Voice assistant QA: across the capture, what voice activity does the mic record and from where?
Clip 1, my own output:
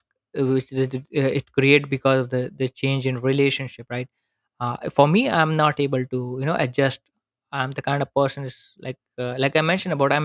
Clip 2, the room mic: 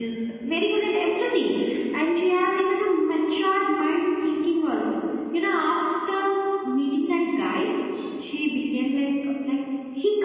user only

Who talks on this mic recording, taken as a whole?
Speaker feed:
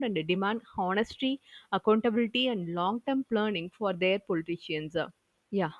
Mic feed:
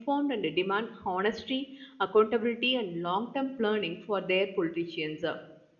echo only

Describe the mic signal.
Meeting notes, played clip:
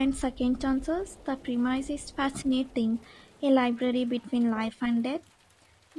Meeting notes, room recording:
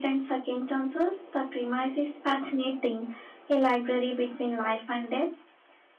echo only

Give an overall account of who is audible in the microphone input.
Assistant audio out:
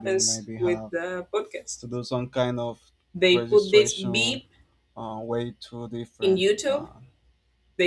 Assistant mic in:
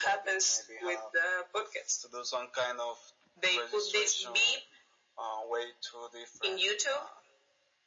echo only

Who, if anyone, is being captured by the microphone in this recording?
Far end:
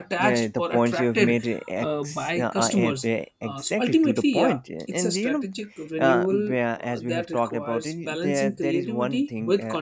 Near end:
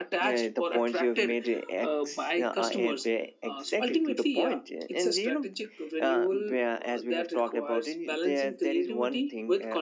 echo only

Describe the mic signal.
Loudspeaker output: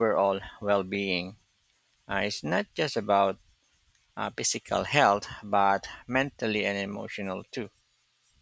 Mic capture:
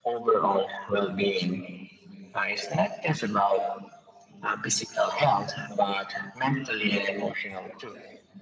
echo only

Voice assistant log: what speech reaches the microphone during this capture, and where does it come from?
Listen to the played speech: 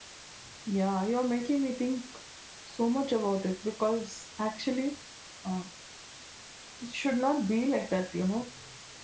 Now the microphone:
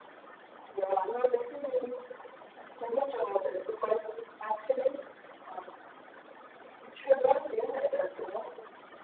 echo only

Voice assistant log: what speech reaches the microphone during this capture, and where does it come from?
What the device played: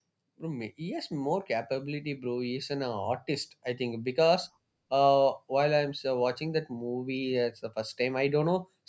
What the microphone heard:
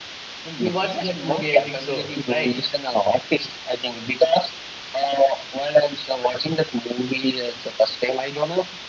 both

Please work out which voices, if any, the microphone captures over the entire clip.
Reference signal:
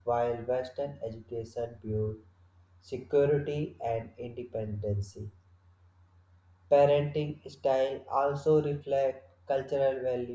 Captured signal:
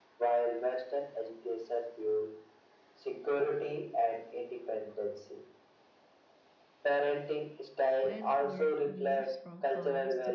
both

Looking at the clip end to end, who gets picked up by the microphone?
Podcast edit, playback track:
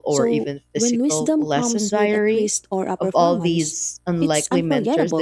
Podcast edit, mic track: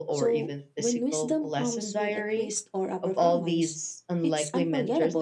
echo only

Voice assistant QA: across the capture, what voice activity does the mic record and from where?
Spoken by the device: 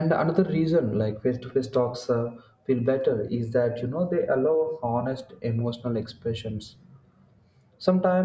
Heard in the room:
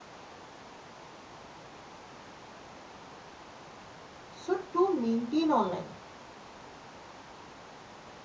user only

